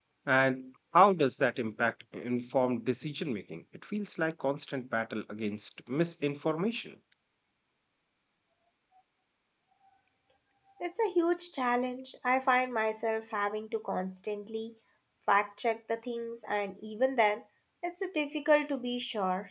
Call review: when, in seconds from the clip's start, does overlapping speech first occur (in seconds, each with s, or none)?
none